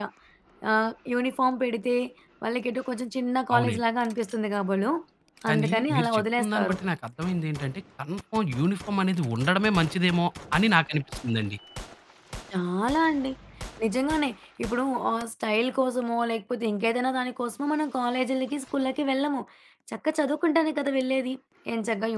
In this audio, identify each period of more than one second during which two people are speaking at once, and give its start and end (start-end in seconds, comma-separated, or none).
5.5-6.8